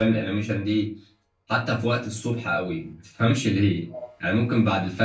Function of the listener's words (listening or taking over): listening